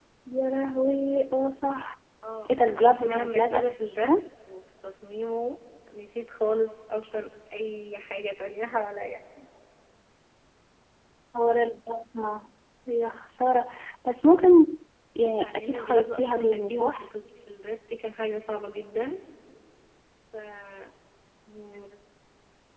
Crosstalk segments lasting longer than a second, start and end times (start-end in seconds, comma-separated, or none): 2.5-4.3, 15.3-17.1